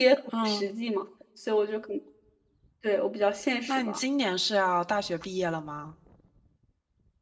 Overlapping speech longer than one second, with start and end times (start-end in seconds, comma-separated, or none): none